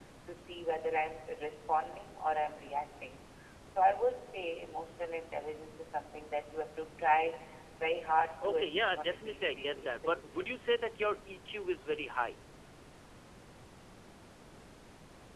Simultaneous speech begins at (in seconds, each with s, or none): 8.4 s